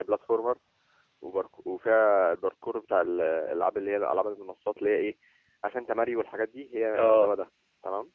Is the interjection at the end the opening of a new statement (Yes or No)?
No